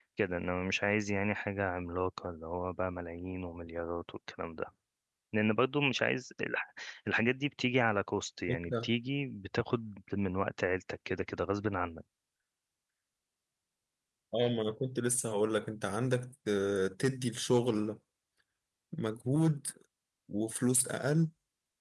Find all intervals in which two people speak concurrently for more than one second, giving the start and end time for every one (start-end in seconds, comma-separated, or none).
none